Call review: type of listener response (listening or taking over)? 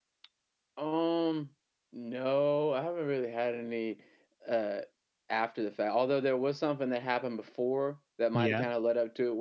listening